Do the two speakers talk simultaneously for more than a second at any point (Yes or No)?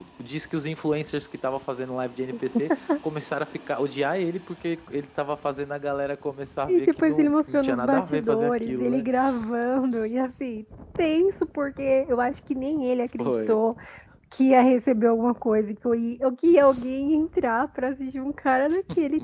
Yes